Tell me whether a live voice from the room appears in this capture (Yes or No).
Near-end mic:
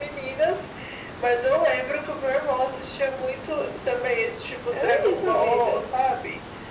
Yes